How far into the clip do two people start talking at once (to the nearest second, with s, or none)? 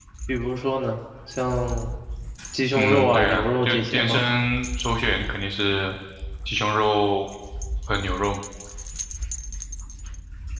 3 s